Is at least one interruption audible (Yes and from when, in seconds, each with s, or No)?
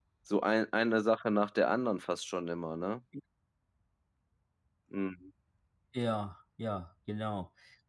No